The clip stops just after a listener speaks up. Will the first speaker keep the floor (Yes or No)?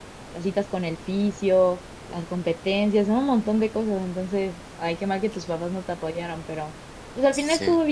Yes